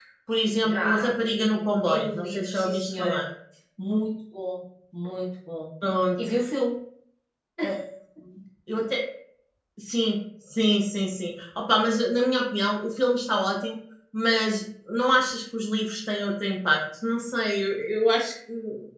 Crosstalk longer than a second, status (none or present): present